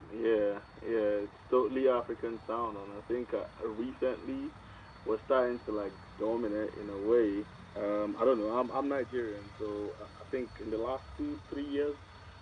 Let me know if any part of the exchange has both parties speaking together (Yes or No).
No